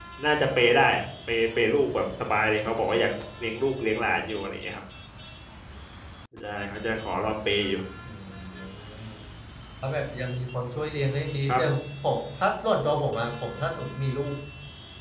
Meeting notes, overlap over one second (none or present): none